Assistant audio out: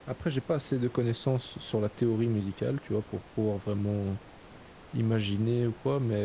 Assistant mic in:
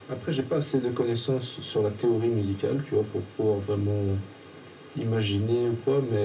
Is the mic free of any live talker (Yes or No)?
Yes